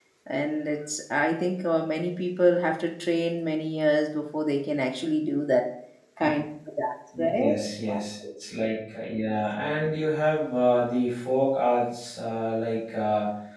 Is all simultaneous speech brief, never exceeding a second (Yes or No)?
Yes